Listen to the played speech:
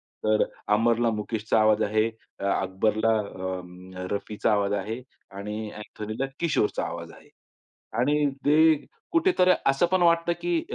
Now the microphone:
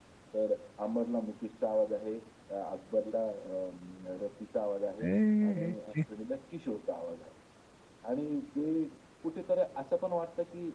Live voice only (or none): ए, हे, हे, हे.